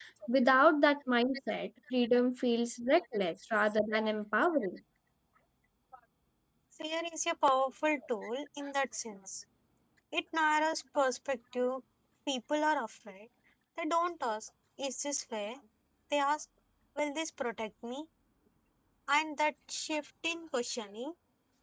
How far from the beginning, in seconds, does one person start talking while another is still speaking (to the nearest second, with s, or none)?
none